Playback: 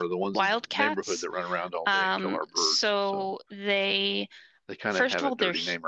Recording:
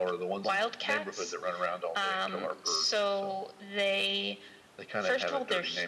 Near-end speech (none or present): none